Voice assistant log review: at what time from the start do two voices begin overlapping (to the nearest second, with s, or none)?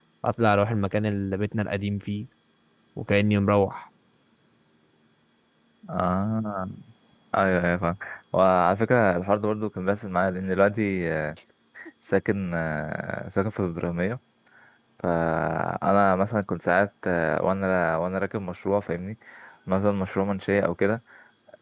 none